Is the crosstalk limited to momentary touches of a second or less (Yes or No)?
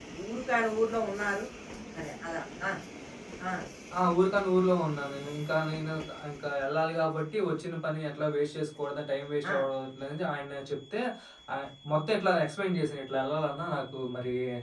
Yes